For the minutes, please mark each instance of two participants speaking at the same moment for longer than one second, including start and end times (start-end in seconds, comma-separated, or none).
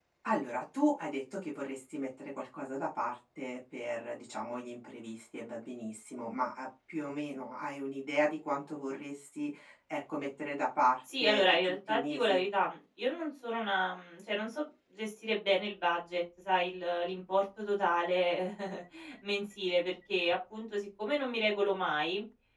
11.2-12.4